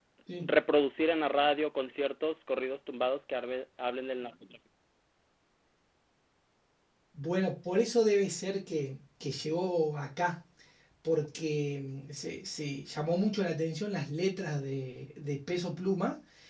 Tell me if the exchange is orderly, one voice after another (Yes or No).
Yes